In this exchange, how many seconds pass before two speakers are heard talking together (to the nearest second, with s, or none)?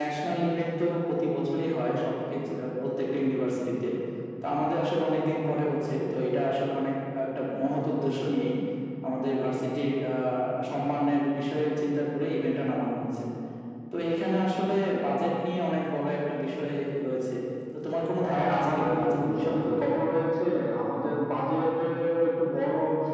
18 s